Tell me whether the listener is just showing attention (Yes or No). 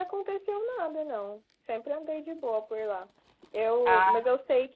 Yes